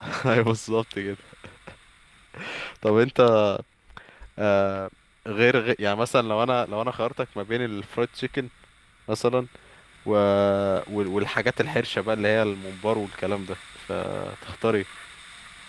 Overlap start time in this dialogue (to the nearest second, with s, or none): none